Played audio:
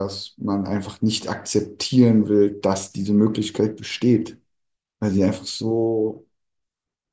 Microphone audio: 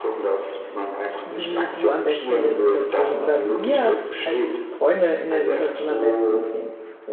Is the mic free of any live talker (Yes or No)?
No